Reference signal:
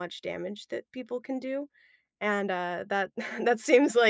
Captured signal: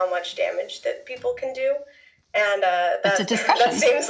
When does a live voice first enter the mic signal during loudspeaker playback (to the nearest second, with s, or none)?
3 s